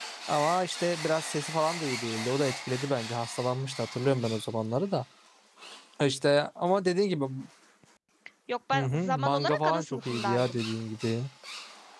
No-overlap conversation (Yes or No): No